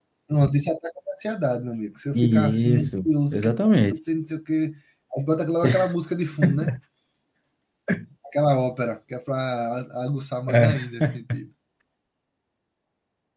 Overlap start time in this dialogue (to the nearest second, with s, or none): 2 s